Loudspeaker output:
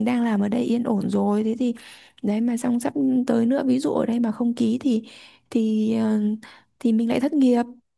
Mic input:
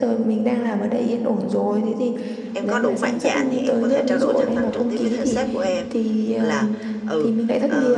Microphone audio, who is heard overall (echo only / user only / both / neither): both